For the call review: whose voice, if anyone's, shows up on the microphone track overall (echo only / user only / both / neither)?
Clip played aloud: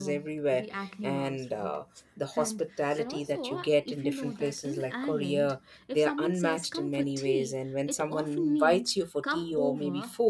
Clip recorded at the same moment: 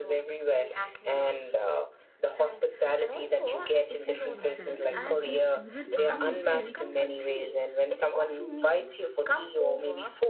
both